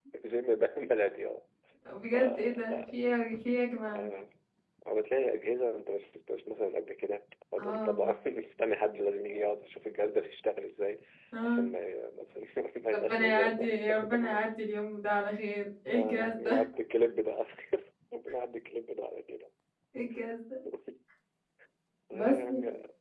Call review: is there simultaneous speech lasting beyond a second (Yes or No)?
Yes